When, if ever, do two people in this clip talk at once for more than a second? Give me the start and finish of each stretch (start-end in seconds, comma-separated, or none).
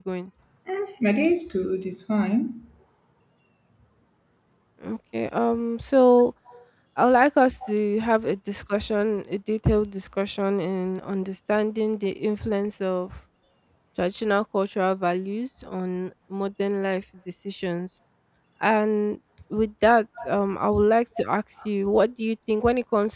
none